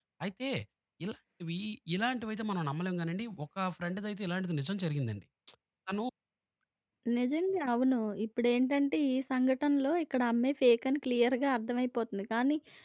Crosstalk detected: No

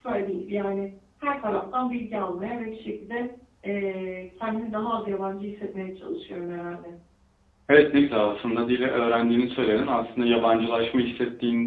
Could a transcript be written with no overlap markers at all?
Yes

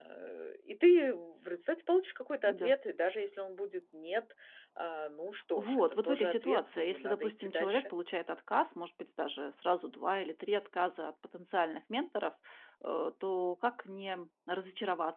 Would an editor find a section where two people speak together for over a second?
Yes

